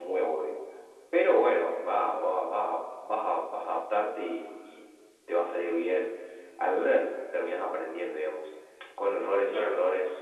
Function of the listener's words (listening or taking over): listening